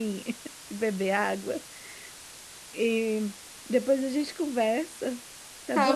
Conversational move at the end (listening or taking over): taking over